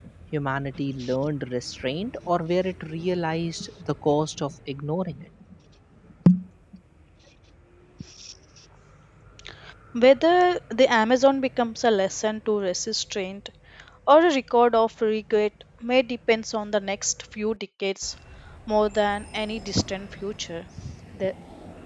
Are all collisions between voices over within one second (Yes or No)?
Yes